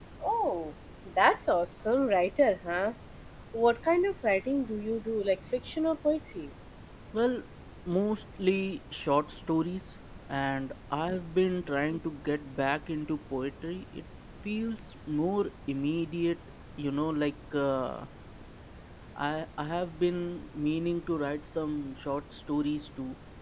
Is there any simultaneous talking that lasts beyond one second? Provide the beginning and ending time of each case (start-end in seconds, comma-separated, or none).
none